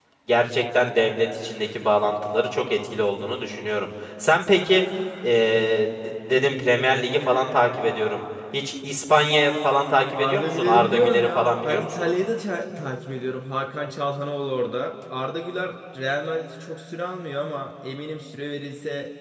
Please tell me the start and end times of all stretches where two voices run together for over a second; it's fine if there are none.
10.1-12.0

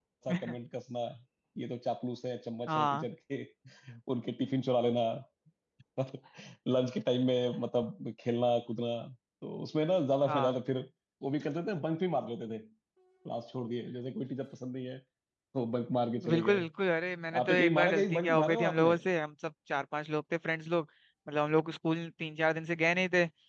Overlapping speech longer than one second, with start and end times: 17.4-18.9

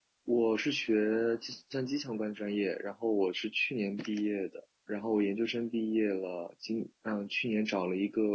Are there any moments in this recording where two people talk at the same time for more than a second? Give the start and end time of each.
none

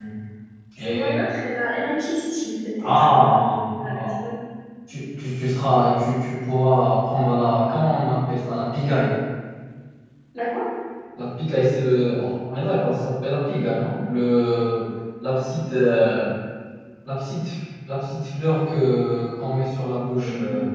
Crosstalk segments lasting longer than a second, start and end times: 2.8-4.1

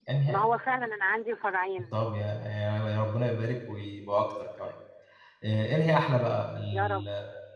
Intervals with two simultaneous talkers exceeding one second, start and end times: none

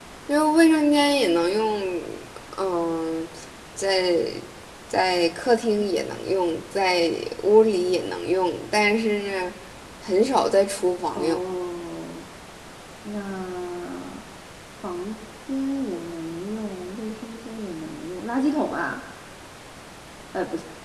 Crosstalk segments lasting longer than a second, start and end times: none

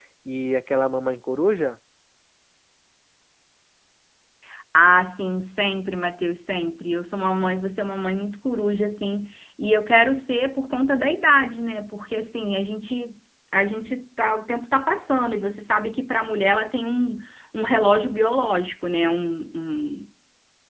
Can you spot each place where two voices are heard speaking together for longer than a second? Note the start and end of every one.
none

